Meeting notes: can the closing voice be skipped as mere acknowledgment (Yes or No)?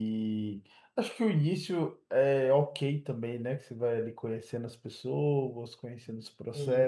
Yes